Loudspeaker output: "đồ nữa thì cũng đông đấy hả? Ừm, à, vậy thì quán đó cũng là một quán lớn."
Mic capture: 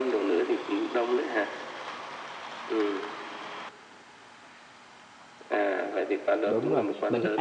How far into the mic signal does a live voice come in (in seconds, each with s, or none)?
6.5 s